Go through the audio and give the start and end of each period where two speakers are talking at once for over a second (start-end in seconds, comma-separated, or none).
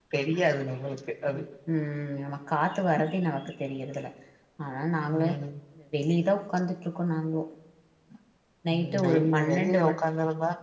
8.7-10.0